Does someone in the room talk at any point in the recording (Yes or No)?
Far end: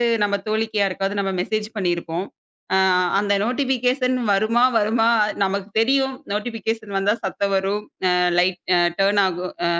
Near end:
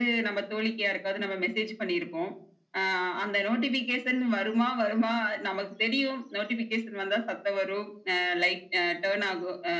No